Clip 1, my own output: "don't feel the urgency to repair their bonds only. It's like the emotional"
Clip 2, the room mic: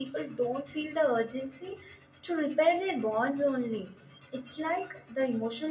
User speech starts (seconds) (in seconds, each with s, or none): none